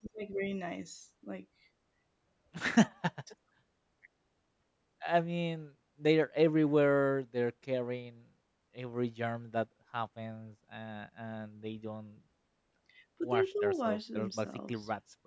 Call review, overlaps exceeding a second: present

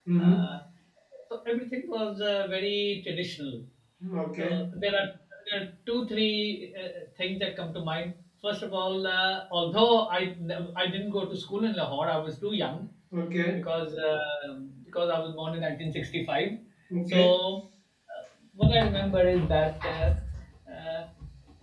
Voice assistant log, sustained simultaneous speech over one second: none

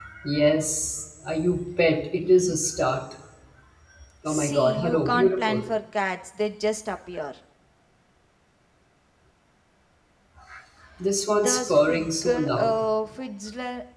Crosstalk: present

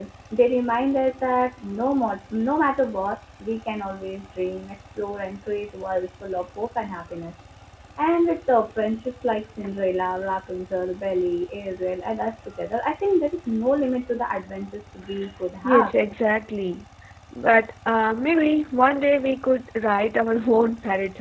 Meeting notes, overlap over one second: none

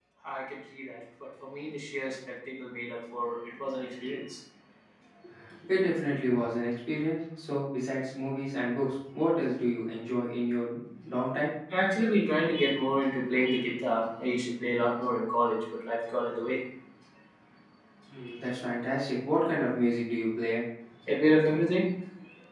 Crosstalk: none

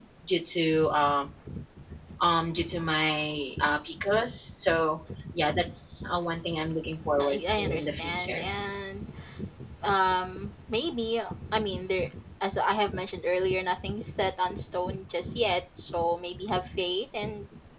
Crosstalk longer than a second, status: present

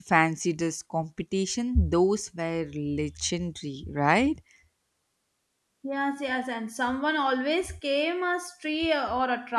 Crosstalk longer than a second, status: none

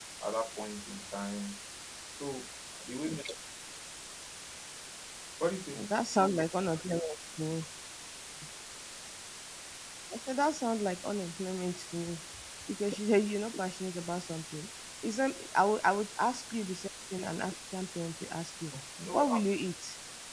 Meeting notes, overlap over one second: none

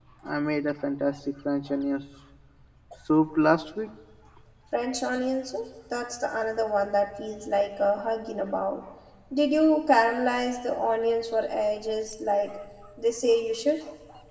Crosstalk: none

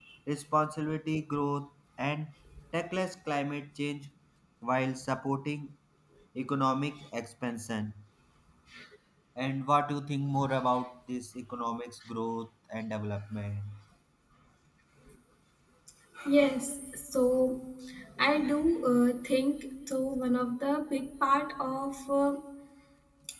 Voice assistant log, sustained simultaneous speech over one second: none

